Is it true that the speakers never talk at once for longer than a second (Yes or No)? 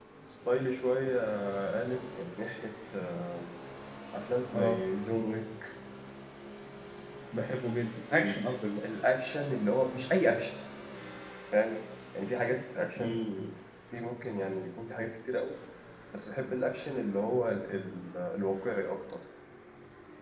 Yes